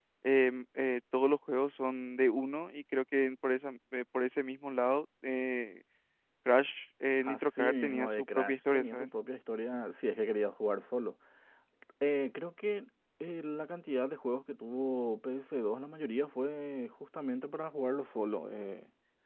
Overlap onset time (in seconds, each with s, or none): 7.2 s